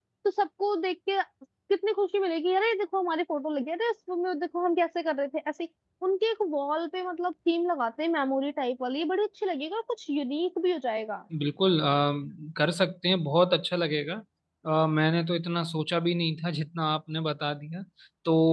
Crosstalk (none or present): none